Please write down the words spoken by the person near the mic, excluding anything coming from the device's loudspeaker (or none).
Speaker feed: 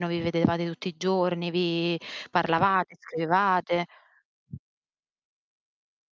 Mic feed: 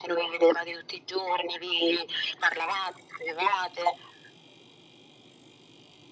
none